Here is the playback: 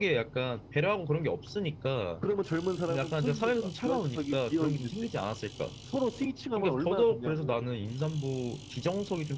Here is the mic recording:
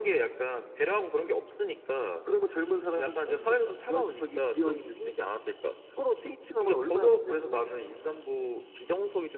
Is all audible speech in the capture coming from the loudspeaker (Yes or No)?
Yes